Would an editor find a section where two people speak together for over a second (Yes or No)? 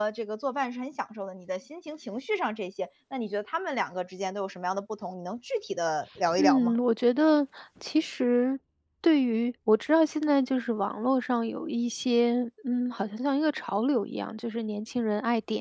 No